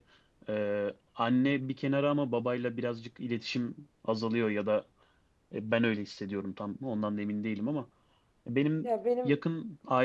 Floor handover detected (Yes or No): No